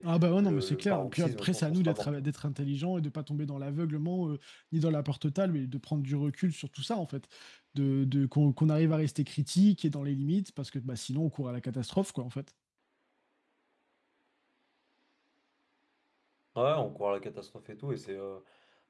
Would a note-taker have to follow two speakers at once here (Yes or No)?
Yes